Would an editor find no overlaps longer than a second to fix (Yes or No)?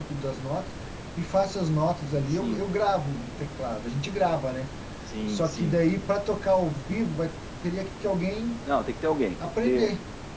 Yes